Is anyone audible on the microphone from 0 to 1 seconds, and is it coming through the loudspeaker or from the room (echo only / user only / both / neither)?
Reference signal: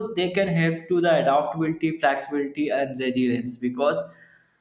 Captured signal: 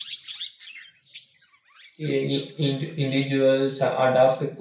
neither